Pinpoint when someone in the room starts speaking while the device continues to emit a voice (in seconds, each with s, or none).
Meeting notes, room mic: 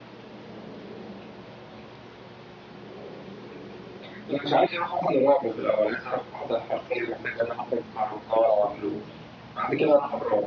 none